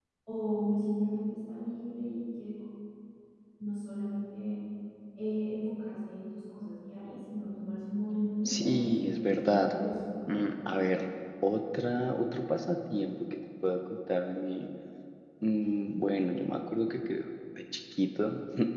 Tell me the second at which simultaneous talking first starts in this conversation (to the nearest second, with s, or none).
8 s